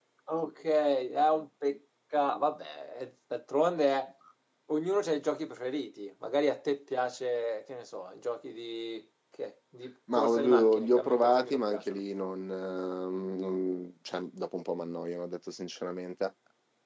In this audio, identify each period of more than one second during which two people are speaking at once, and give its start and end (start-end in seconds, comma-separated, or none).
10.1-12.0